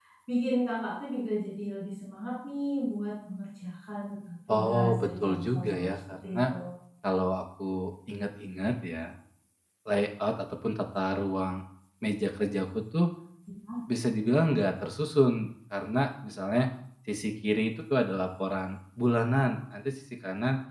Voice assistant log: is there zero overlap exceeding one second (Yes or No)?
No